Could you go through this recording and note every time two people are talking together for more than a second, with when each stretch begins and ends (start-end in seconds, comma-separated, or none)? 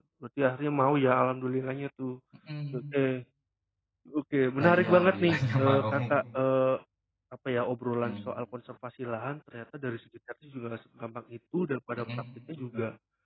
4.6-5.8